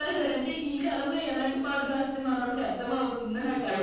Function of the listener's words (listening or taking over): taking over